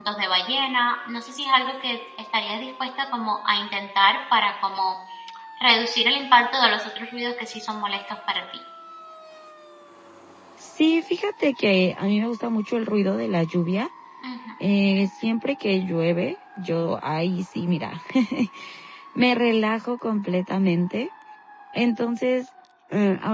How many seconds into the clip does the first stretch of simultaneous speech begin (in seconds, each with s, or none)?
none